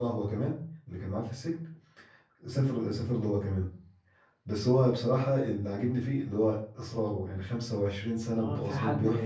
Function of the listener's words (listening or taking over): taking over